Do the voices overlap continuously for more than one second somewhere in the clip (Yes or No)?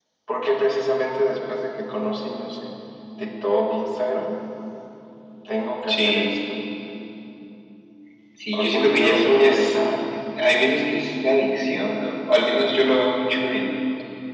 Yes